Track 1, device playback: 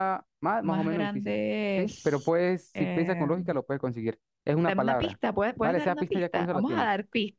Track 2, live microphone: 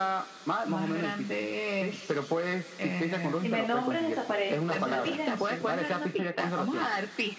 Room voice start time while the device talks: 3.4 s

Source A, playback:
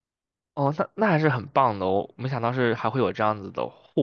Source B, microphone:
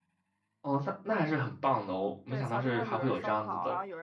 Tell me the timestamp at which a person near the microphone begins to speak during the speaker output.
2.3 s

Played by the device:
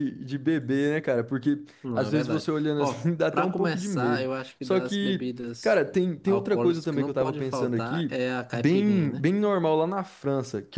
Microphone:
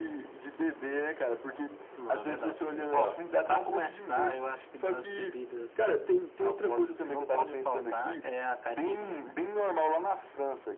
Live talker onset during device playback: 2.7 s

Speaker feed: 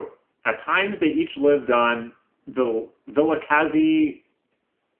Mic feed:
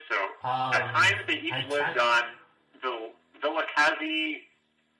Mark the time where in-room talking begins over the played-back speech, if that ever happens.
0.4 s

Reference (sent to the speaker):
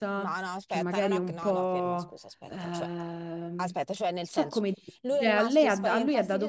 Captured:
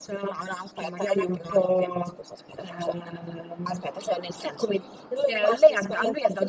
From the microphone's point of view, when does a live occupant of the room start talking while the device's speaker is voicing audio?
none

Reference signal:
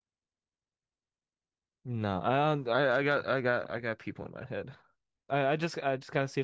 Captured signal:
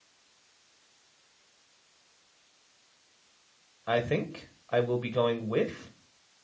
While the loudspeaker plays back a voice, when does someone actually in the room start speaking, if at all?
3.9 s

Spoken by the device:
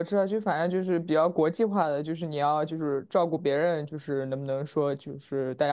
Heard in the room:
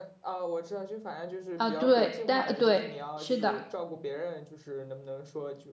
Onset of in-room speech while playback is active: 1.5 s

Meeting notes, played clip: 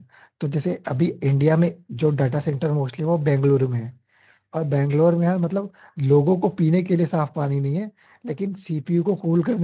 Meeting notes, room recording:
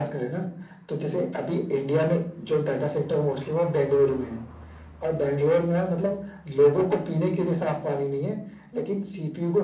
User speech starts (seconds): none

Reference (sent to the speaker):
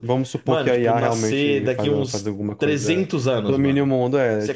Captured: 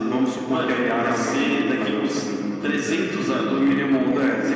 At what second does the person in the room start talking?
none

